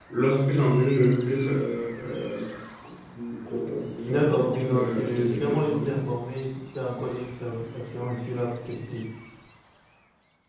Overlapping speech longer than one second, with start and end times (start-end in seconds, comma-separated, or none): 4.1-6.0